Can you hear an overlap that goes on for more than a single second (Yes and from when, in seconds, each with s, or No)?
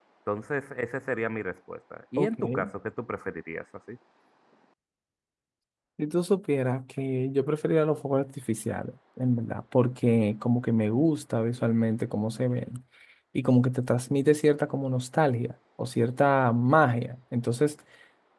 No